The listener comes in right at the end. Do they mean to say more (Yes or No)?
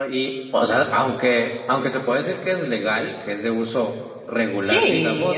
Yes